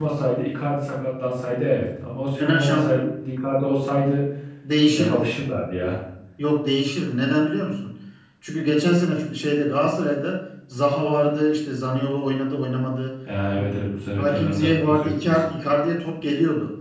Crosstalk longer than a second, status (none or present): present